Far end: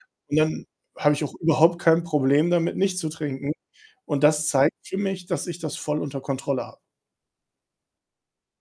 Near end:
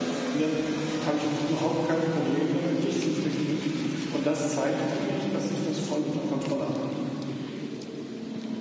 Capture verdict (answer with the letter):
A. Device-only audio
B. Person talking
A